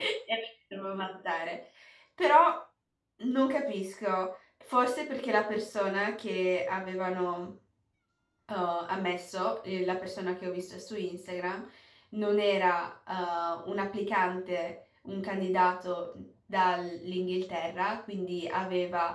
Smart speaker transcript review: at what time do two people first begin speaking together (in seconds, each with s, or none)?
none